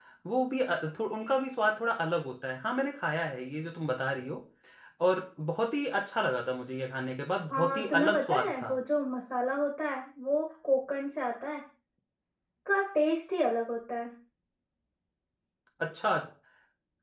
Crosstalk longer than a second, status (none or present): present